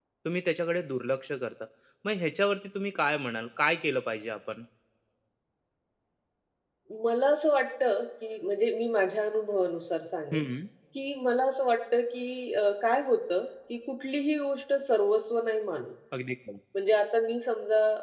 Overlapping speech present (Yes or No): No